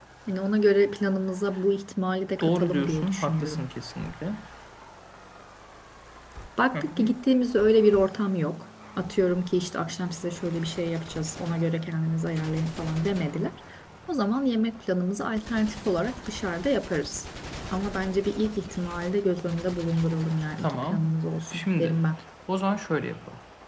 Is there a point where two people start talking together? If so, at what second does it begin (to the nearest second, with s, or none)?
2 s